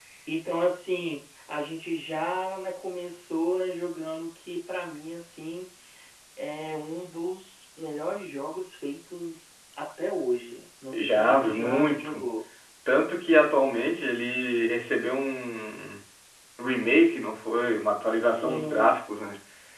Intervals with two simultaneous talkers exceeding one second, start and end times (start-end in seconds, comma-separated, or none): 10.9-12.2